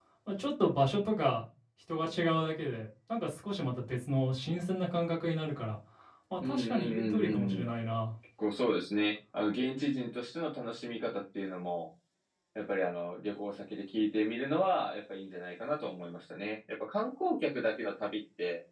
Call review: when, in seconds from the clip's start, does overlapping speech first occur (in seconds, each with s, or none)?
6.4 s